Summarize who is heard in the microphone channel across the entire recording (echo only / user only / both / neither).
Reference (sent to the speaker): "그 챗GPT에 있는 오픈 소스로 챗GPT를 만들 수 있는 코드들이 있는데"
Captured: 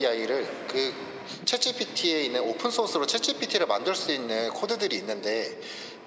echo only